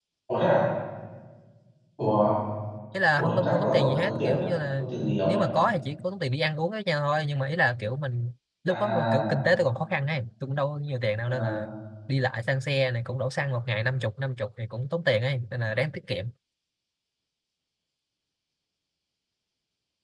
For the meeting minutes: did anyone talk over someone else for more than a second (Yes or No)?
Yes